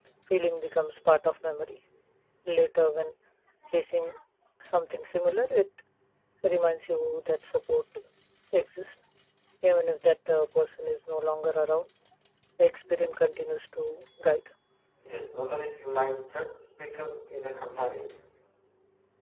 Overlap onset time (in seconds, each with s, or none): none